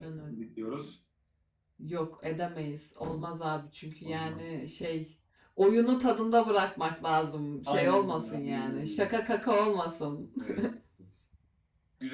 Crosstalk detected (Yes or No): Yes